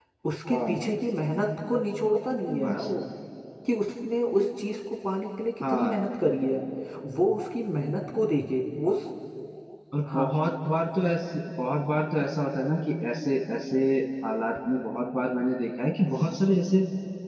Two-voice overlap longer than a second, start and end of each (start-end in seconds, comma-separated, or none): none